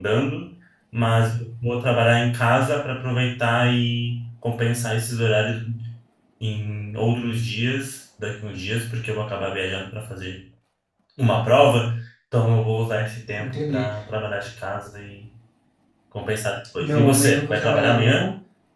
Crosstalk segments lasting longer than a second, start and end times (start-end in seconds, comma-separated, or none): 16.8-18.3